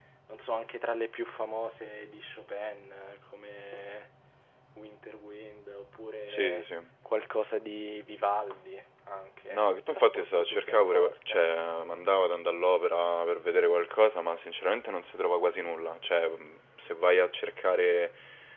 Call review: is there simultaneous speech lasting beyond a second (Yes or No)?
Yes